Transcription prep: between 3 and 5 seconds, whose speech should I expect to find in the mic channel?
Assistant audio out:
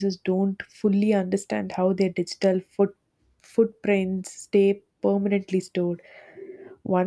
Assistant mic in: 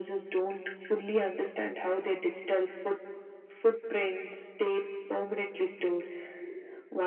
echo only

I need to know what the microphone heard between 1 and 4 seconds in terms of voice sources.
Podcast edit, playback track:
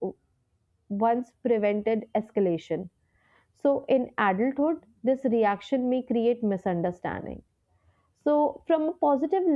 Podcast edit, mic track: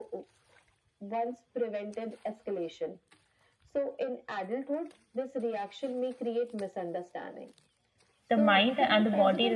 echo only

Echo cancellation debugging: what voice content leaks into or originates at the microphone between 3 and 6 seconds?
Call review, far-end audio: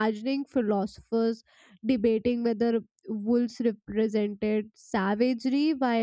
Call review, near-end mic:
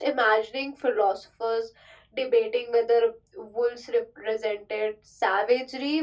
echo only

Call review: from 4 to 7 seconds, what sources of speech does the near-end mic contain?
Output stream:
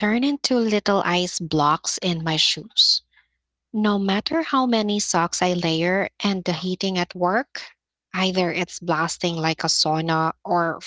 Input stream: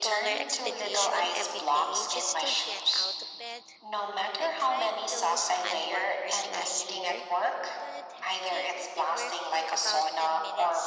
both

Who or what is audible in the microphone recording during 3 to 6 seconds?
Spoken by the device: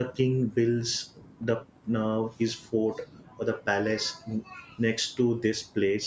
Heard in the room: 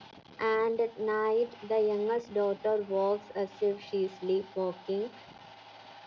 user only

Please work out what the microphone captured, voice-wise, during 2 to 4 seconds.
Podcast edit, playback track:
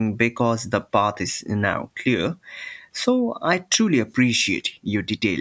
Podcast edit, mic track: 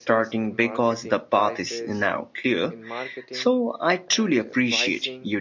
both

